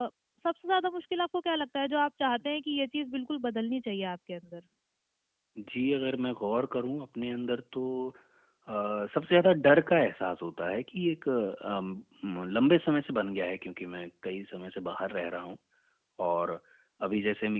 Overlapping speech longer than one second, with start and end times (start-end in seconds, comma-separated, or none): none